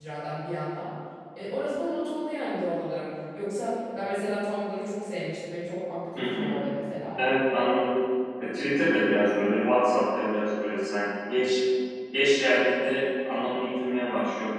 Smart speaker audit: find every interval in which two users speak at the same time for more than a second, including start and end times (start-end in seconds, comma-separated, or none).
none